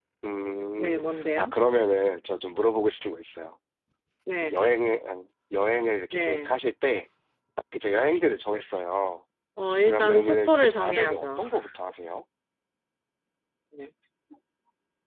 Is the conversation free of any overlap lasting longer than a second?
No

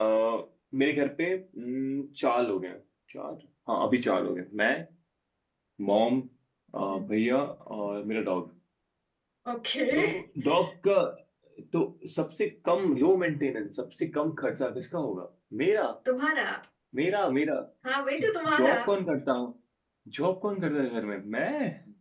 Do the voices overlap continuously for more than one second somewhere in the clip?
No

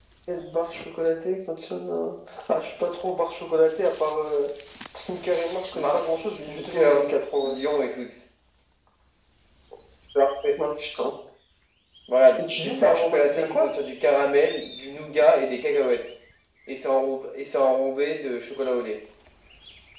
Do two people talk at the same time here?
Yes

